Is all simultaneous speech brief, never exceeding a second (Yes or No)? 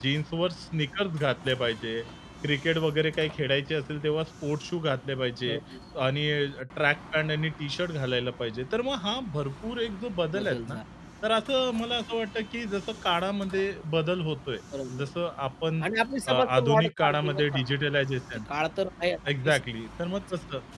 No